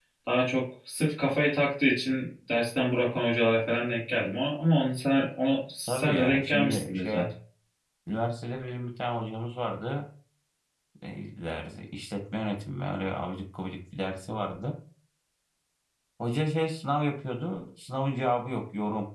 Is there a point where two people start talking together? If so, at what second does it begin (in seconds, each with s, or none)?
5.8 s